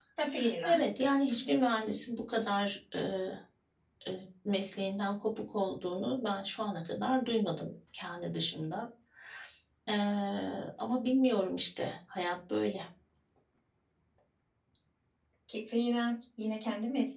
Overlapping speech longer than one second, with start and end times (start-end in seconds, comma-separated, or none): none